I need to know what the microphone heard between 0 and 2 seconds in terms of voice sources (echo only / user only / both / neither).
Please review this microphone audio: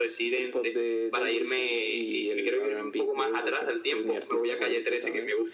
echo only